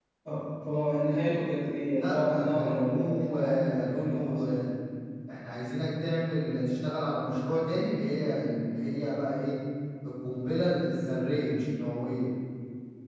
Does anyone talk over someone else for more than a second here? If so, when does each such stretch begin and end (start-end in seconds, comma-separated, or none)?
1.8-4.7